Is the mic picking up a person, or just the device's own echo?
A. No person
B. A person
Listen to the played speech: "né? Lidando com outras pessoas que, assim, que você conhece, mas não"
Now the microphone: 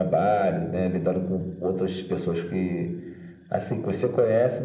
A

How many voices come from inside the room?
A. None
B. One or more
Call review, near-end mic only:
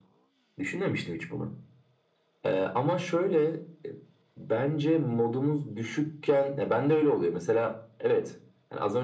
A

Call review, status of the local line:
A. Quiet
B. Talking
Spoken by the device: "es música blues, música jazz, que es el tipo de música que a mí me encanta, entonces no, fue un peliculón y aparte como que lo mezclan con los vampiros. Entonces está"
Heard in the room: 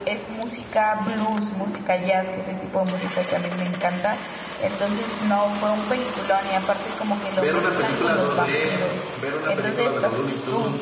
B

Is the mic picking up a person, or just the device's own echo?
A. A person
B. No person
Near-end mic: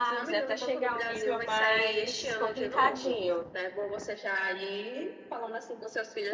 A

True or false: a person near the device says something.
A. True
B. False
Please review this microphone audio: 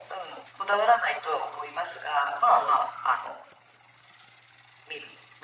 A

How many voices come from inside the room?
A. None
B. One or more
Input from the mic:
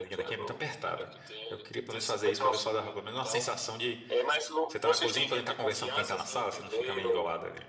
B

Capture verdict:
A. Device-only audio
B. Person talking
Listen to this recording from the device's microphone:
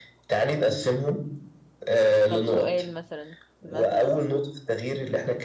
B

